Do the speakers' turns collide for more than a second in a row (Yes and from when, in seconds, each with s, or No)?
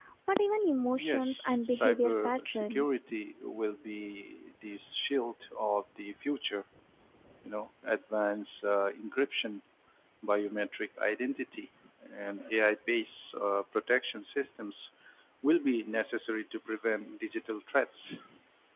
Yes, from 1.0 s